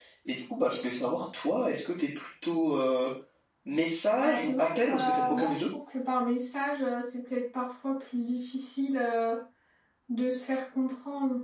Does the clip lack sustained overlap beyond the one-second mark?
No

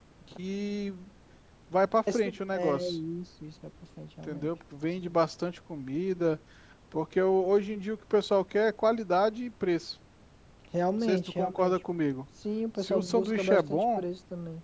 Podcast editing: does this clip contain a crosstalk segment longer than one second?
Yes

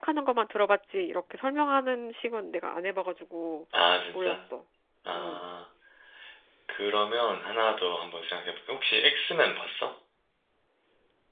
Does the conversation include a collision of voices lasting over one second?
No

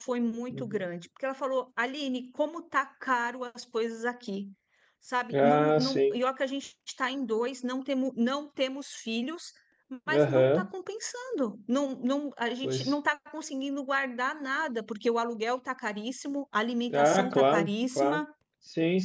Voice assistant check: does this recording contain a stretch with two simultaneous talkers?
Yes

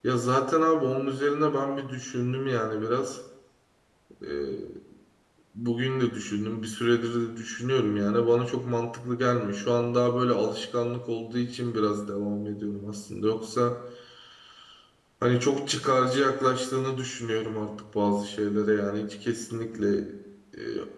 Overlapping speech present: No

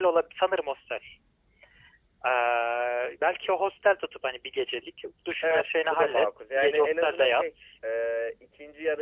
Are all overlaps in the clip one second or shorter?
No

